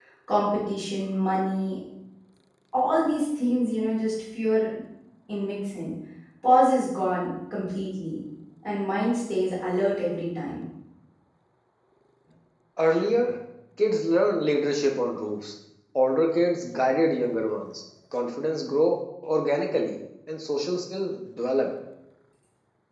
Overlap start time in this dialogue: none

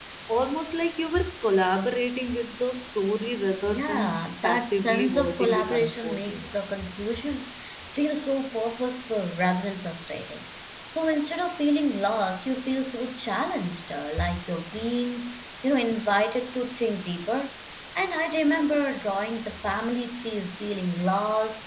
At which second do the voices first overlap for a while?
4 s

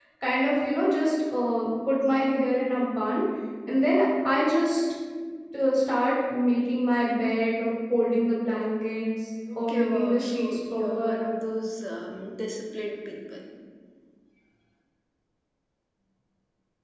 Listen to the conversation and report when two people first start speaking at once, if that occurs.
9 s

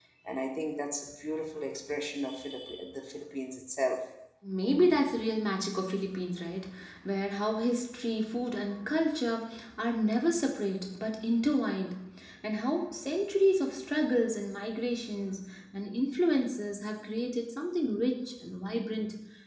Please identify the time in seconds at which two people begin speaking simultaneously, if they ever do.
none

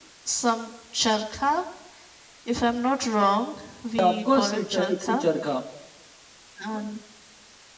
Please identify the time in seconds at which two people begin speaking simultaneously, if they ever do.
4 s

